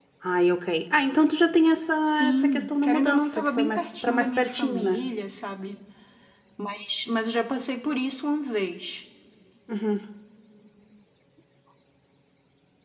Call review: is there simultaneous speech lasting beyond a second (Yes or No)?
Yes